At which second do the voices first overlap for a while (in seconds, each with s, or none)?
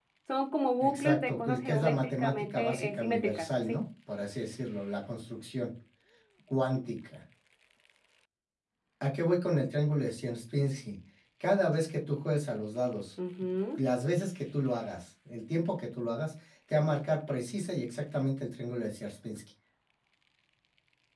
0.8 s